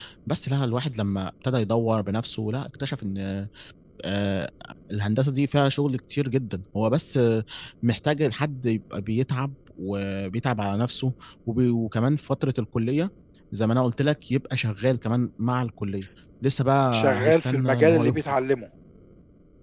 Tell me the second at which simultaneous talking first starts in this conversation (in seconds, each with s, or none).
16.9 s